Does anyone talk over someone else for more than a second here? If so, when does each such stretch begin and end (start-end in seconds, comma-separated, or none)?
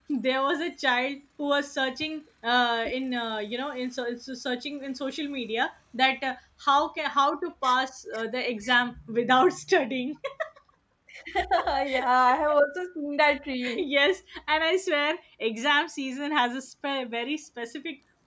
none